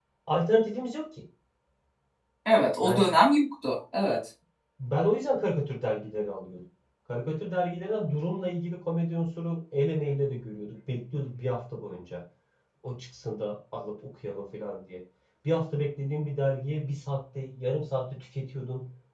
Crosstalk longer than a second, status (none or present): none